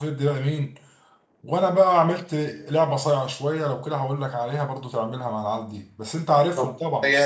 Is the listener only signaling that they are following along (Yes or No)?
No